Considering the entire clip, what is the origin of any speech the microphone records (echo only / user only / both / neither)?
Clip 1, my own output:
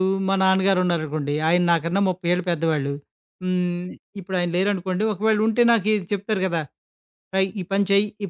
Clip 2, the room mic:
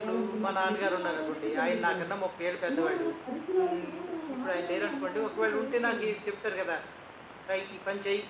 both